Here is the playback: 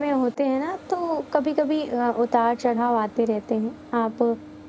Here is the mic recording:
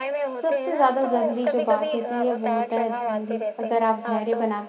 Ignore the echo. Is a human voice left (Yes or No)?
Yes